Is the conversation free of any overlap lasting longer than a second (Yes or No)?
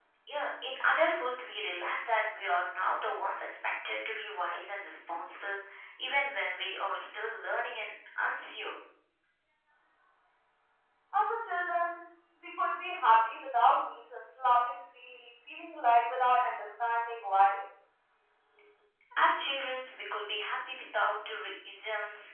Yes